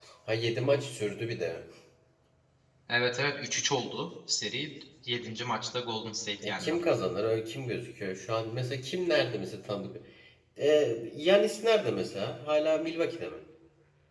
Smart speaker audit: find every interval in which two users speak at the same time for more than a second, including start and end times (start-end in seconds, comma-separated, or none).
none